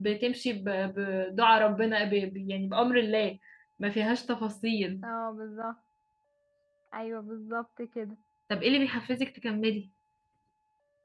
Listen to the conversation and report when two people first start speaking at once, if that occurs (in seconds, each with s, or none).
none